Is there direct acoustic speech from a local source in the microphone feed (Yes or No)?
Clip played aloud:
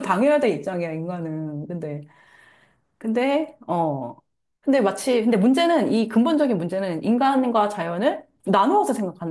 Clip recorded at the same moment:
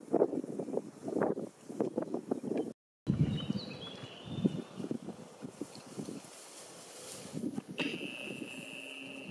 No